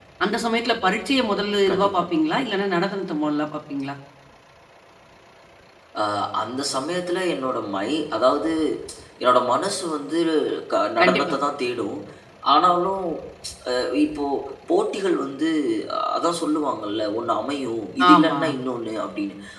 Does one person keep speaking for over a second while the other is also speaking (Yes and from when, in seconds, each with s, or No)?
No